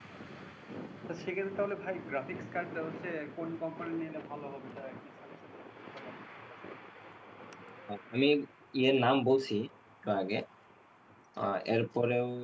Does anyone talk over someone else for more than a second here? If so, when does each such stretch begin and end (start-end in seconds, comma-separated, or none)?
none